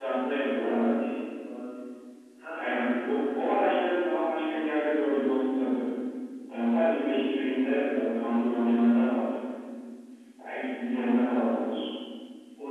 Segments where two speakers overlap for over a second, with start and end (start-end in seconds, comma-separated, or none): 2.5-4.0